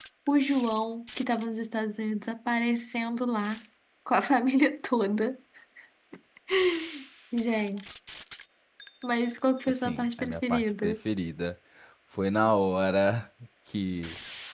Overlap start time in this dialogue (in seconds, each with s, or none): 9.7 s